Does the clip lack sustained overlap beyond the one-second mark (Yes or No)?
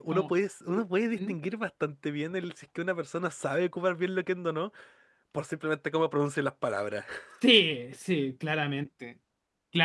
Yes